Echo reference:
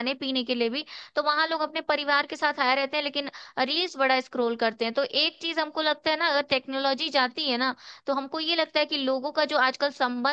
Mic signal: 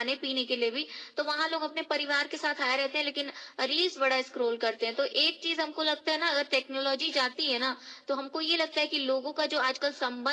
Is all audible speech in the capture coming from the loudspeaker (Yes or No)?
Yes